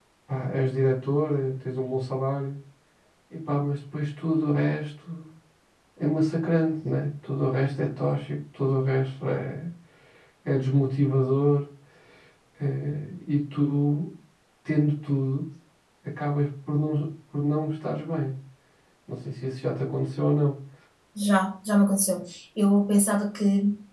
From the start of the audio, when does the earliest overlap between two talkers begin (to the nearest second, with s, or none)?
none